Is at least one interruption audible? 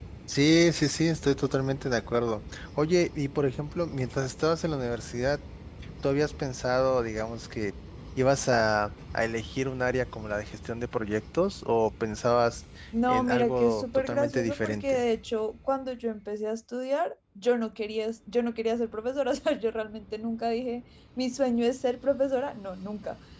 Yes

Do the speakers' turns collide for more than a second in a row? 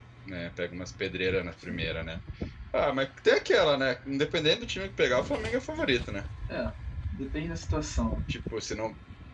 No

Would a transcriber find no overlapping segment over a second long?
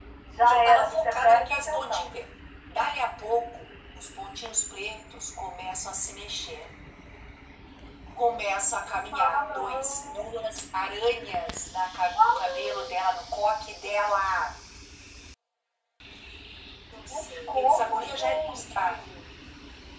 No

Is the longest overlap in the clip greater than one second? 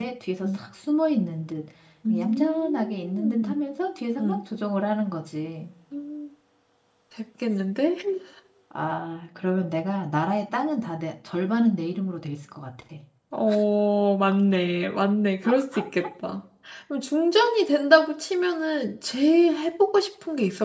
Yes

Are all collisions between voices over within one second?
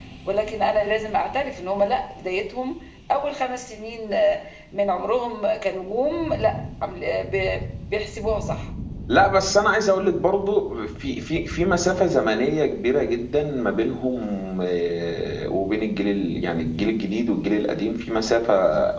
Yes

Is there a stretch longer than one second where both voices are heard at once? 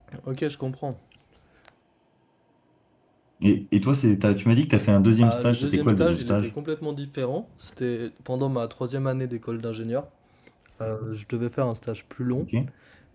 Yes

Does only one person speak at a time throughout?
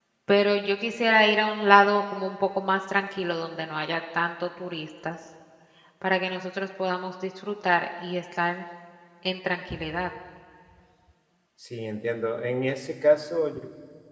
Yes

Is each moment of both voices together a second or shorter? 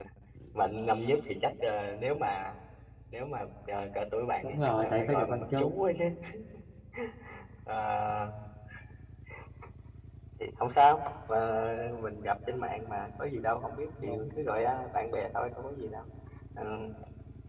No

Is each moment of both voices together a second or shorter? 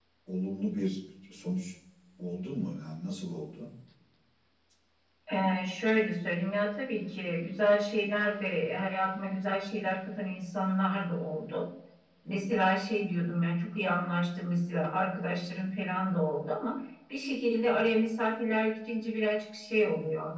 Yes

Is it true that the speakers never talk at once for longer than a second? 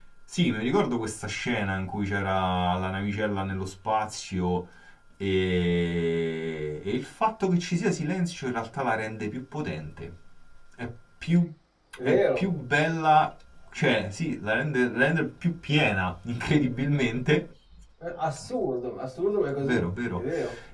Yes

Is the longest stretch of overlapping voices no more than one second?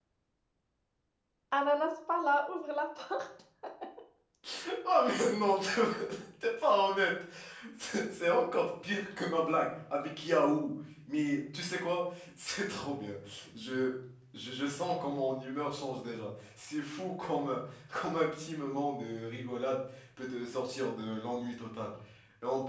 Yes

